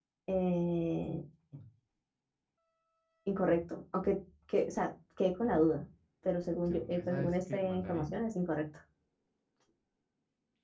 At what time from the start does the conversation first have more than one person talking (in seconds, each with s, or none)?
6.7 s